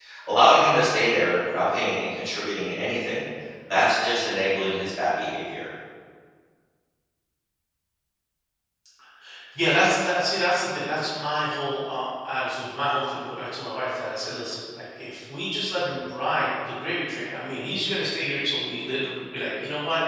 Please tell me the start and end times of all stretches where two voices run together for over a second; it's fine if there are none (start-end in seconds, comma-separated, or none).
none